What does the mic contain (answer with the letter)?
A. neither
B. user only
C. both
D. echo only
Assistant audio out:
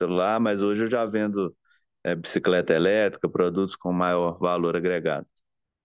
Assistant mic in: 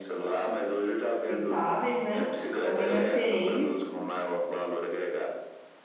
C